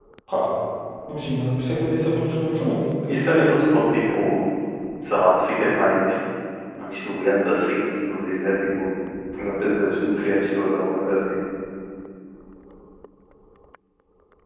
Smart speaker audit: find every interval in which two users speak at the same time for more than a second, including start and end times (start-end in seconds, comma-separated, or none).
none